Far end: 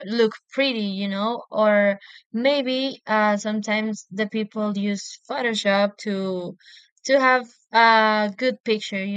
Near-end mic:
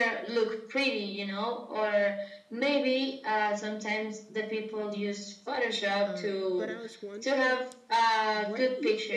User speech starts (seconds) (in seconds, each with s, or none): 6.0 s